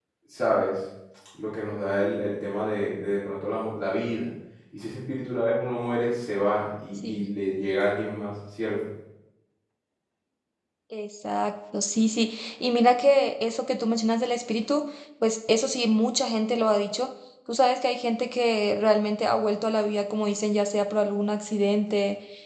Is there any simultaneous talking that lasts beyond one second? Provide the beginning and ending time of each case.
none

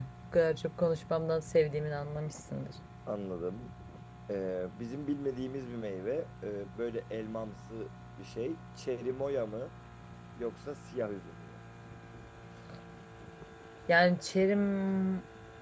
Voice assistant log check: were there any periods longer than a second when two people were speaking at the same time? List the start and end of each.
none

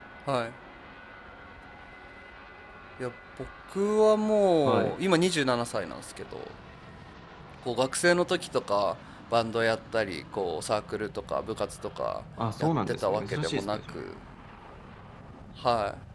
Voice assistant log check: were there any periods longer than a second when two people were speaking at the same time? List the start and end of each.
12.6-14.0

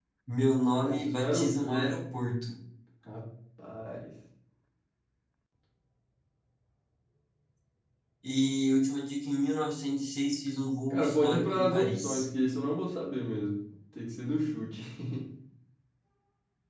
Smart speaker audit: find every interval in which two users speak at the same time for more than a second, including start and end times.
0.8-2.0, 10.9-12.3

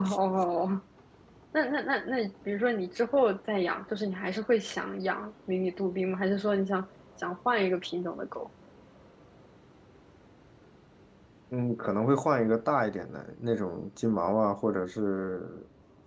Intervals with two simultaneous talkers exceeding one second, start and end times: none

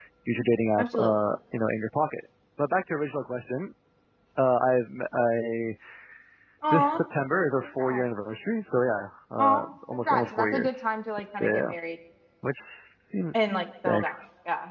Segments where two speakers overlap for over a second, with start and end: 9.4-10.9

